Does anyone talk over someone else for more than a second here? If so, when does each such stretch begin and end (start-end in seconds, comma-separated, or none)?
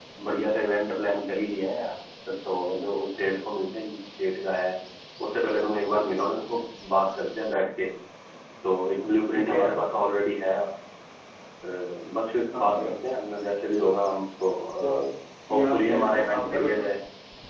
15.5-16.8